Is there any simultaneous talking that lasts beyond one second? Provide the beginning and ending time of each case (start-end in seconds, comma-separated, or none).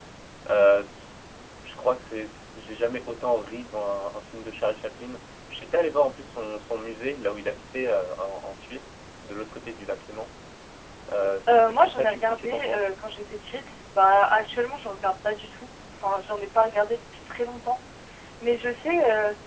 11.5-12.8